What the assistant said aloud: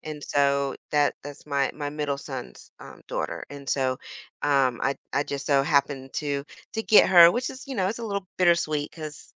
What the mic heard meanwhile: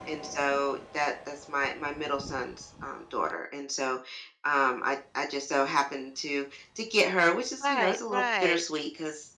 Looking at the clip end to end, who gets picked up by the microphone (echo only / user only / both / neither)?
both